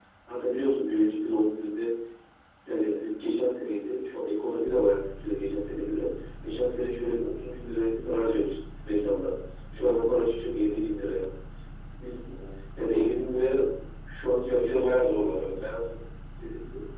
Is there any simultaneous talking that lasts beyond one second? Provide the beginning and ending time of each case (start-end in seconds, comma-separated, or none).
none